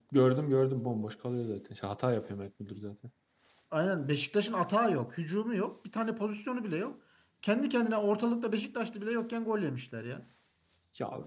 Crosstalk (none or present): none